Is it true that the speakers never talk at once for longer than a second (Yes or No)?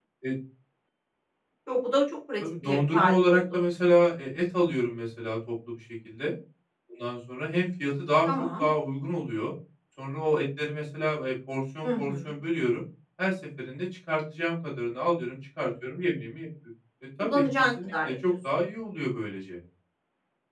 No